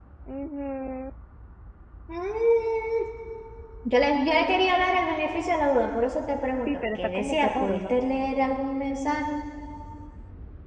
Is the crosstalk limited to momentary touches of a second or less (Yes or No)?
No